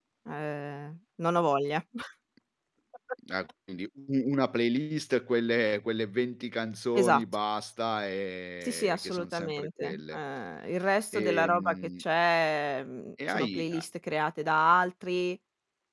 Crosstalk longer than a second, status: present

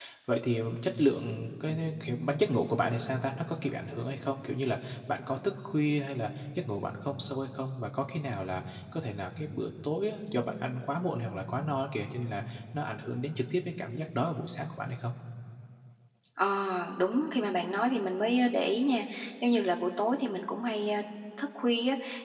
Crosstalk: none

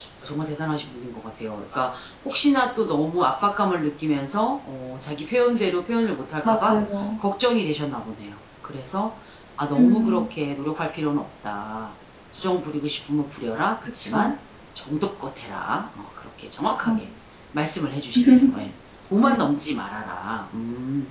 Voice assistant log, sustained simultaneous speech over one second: none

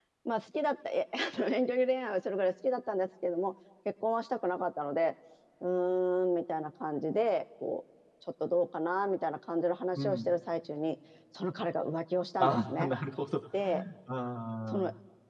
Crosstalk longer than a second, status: none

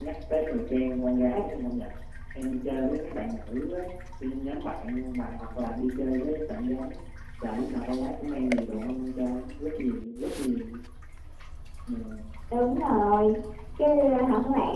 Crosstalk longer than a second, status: none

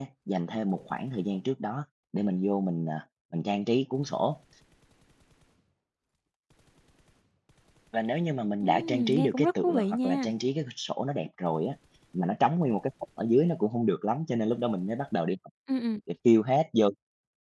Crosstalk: present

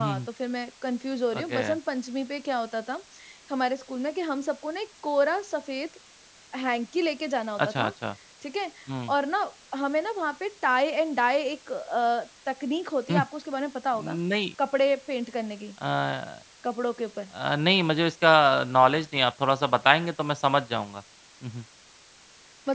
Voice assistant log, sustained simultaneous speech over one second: none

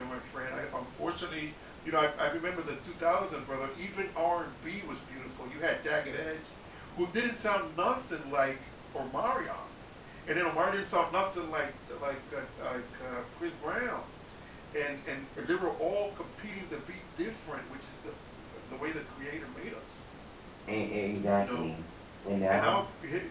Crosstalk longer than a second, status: none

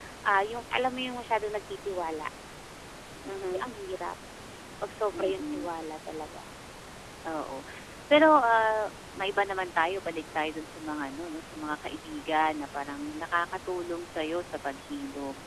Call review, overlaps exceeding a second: none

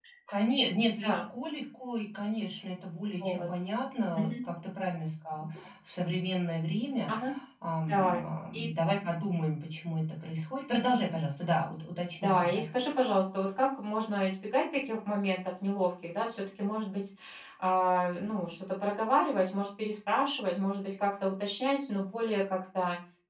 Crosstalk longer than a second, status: none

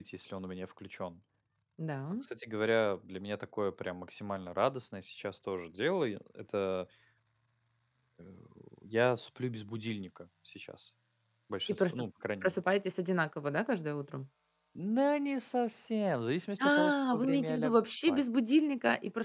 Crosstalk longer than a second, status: present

